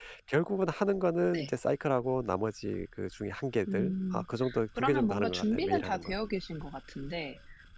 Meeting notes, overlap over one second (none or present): present